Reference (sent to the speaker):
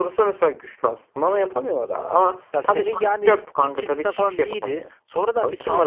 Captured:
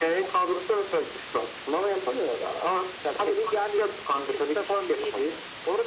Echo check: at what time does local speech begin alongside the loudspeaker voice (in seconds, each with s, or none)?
none